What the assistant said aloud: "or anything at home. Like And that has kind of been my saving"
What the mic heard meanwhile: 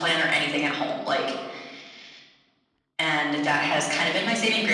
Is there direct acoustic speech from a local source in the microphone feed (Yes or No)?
No